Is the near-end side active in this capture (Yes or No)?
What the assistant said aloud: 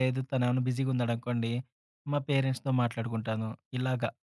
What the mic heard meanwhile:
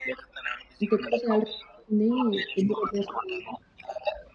Yes